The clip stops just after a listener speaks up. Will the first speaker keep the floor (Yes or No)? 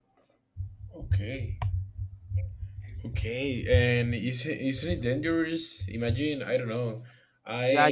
No